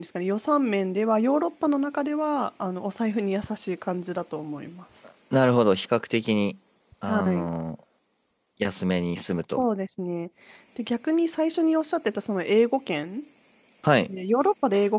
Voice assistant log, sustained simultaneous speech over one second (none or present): none